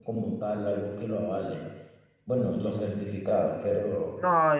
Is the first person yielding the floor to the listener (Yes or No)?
Yes